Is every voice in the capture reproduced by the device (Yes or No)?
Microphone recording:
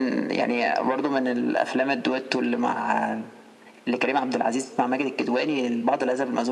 Yes